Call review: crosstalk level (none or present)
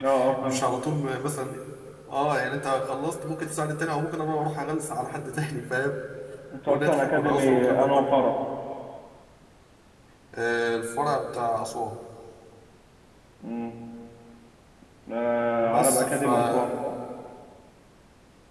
present